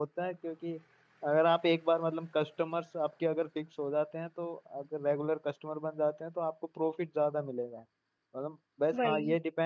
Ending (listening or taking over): listening